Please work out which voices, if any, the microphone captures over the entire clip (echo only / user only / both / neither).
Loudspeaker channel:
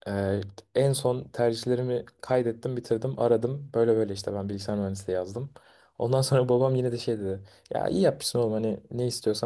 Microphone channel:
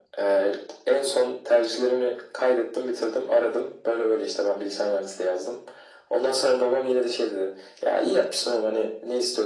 echo only